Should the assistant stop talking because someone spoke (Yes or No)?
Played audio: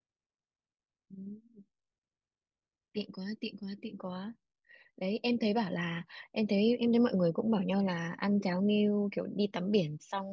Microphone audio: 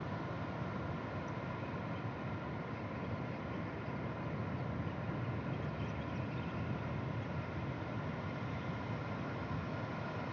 No